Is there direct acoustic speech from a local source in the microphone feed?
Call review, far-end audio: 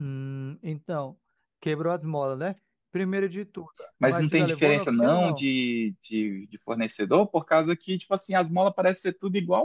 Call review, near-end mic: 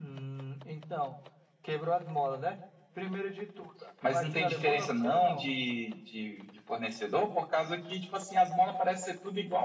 No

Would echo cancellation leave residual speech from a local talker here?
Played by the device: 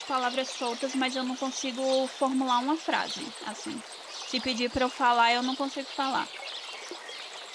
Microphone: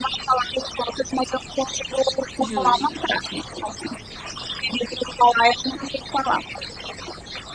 Yes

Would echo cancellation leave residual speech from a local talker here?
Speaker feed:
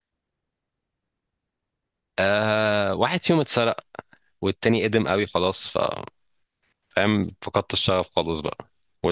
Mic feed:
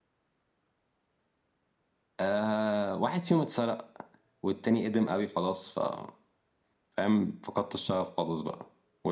No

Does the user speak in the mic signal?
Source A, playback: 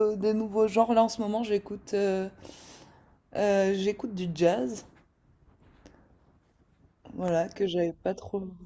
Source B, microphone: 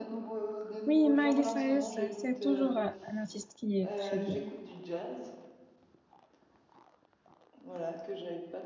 Yes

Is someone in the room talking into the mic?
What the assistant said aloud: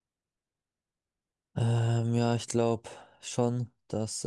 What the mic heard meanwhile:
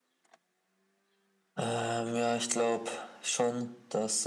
No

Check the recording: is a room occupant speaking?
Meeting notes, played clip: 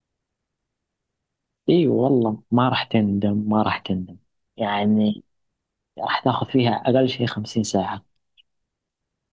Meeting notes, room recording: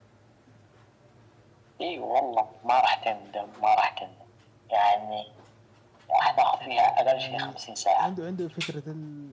Yes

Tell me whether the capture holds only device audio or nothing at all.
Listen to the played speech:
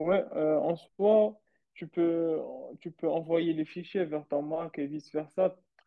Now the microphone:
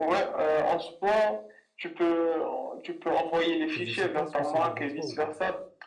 No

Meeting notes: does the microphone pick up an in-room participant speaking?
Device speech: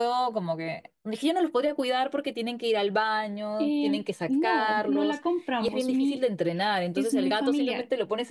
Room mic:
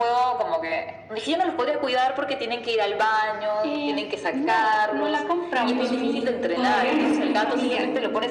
Yes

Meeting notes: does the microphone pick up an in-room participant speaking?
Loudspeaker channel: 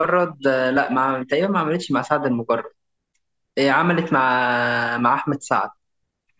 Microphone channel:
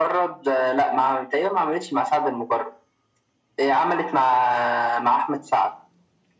No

